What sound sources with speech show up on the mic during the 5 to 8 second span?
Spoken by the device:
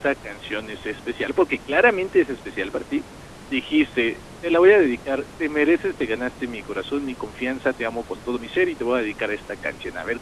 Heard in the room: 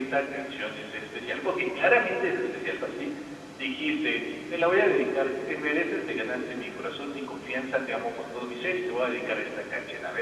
echo only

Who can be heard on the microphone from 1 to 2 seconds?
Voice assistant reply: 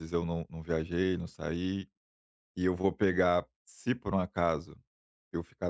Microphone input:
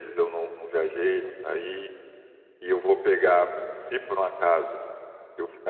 echo only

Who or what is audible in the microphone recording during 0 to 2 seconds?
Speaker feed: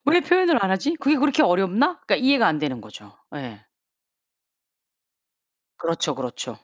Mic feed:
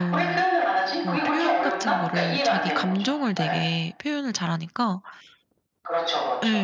both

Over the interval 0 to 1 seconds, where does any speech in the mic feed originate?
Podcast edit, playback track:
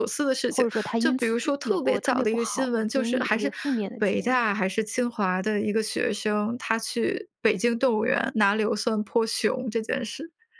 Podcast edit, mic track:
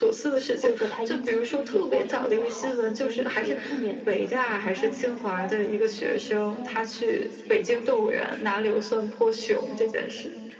echo only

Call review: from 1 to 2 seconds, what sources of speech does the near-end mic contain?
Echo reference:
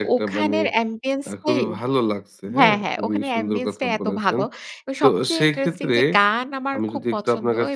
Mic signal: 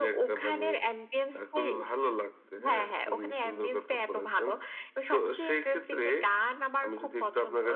echo only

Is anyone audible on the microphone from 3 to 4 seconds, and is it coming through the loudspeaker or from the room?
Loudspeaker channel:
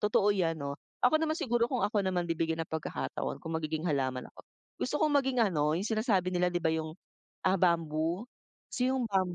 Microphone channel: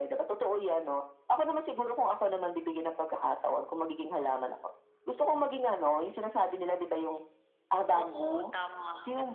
echo only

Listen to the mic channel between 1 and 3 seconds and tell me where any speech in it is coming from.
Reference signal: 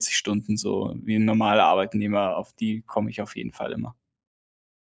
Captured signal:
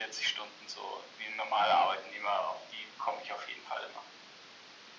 echo only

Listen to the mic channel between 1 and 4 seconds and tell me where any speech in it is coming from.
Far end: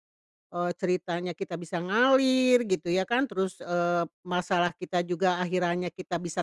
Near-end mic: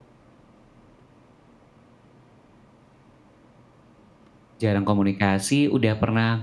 neither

